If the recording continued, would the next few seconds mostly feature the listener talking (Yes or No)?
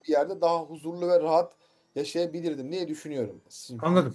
No